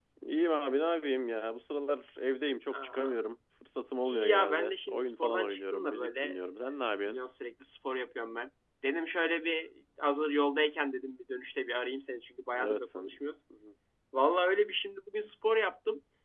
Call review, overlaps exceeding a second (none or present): present